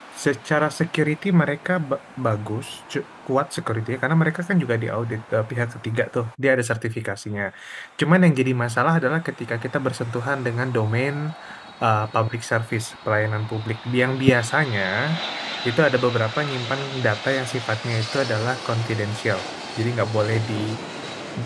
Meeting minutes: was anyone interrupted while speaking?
No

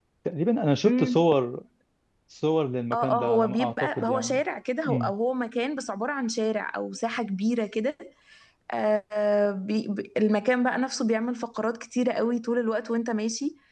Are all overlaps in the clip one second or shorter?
No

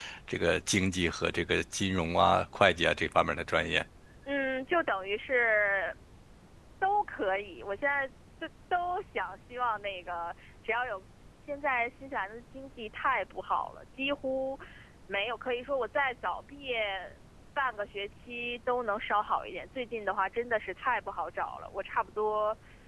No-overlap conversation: Yes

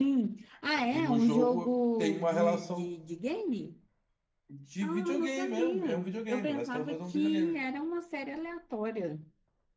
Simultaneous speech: Yes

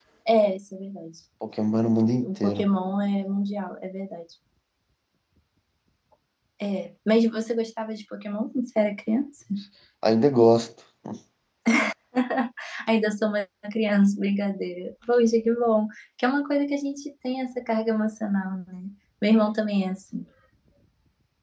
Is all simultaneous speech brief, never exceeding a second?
Yes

